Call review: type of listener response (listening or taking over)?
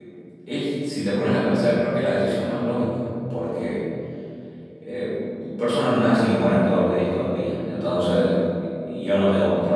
listening